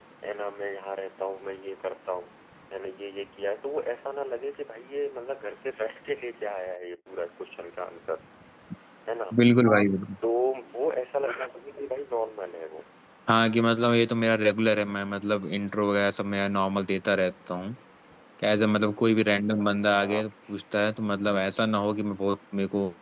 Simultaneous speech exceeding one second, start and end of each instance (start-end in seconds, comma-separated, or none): none